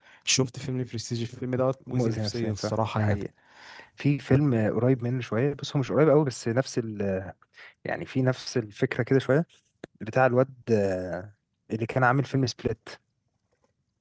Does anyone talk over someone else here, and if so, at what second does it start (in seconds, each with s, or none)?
1.9 s